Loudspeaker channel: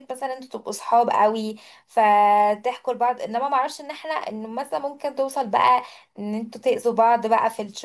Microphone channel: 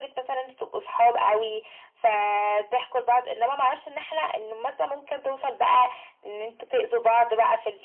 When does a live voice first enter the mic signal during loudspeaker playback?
none

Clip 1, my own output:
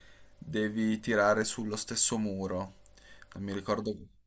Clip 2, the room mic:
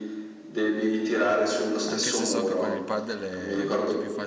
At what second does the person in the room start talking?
2 s

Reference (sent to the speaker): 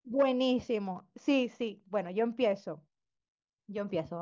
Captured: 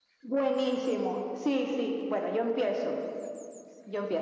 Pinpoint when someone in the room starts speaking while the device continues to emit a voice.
none

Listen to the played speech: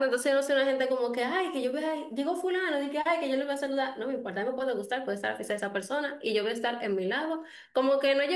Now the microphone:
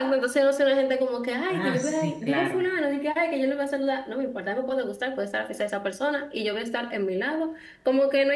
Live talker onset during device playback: 1 s

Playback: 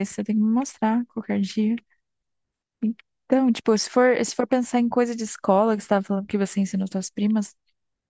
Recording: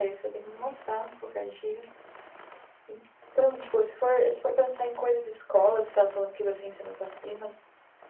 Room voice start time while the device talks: none

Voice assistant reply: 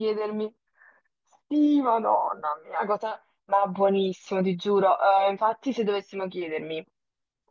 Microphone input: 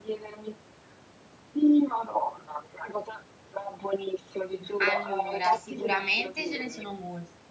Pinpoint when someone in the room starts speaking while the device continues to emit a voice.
5 s

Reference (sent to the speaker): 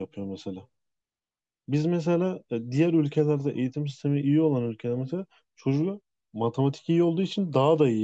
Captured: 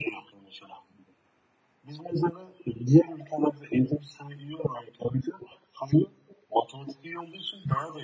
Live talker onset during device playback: none

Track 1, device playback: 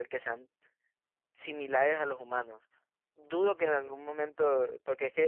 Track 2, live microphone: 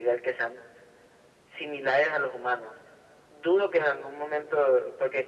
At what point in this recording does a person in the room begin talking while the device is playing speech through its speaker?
none

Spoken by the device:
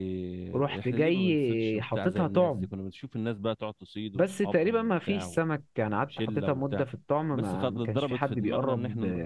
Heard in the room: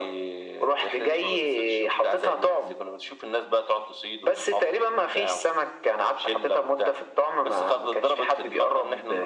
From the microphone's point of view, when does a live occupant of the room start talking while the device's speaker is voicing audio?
none

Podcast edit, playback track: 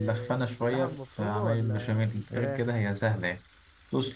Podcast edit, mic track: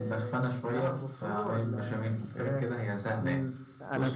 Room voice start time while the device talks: 3 s

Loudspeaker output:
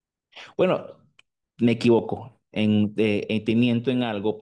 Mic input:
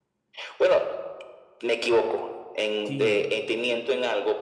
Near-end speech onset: 3 s

